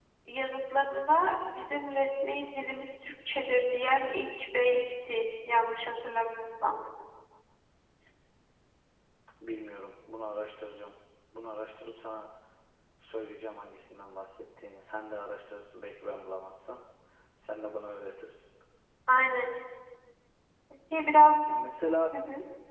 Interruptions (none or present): none